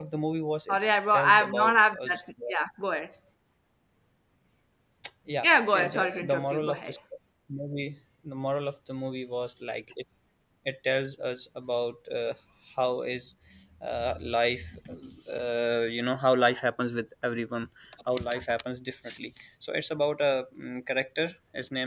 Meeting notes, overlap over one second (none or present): present